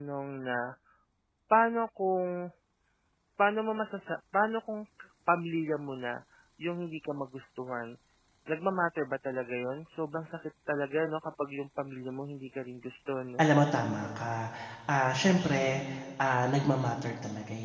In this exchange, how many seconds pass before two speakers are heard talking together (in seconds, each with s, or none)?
none